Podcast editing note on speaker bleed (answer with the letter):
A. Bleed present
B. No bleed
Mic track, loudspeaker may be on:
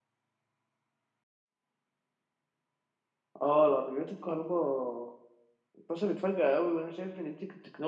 B